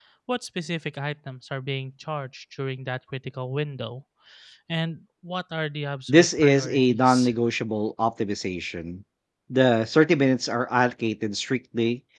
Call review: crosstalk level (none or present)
present